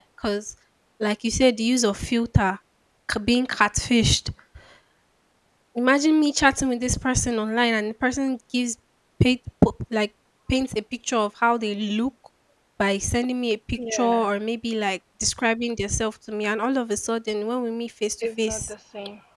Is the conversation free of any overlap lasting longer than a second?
Yes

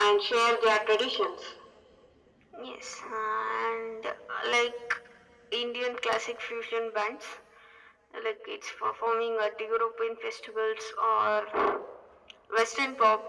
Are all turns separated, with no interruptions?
Yes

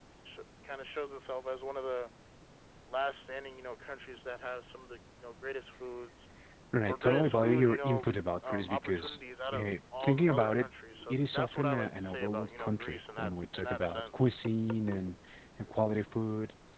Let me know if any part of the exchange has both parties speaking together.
Yes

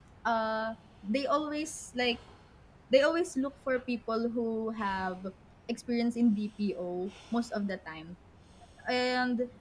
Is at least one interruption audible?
No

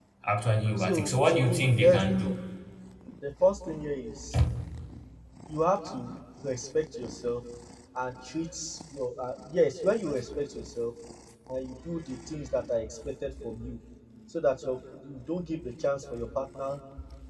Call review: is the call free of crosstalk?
No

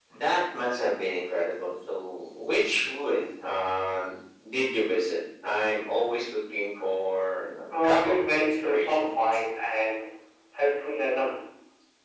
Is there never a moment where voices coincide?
No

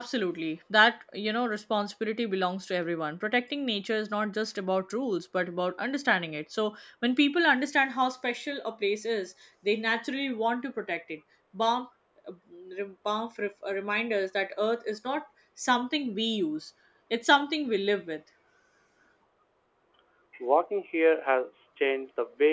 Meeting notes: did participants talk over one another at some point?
No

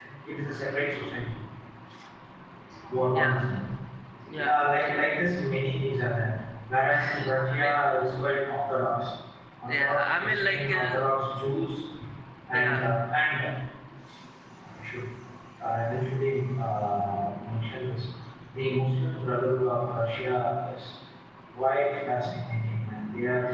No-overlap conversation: No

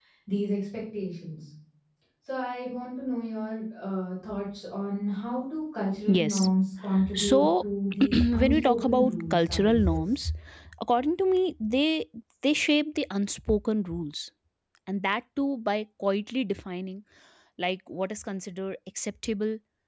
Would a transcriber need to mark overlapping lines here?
Yes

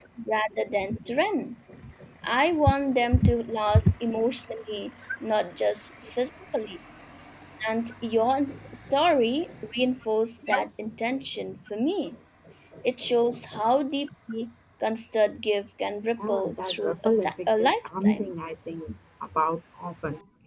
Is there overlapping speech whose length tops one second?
Yes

